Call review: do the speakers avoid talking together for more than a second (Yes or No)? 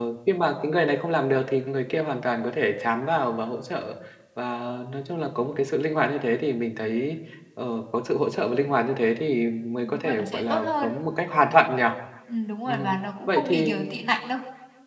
No